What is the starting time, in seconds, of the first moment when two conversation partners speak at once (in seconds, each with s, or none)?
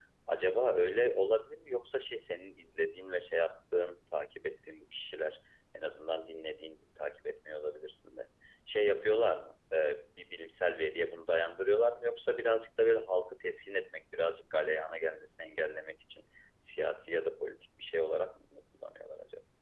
none